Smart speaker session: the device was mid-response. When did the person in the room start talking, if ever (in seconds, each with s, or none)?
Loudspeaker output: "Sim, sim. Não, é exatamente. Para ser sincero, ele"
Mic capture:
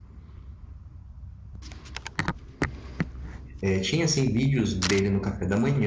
3.6 s